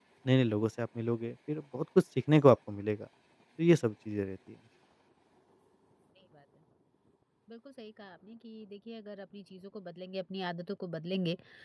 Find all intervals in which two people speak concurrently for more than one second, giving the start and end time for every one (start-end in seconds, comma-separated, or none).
none